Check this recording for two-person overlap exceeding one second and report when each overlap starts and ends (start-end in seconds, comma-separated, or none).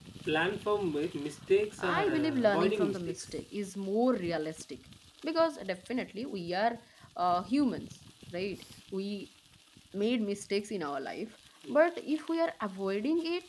1.8-3.3